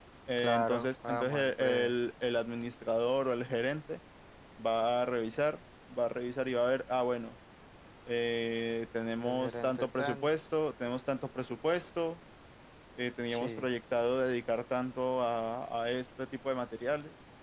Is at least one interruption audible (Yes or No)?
Yes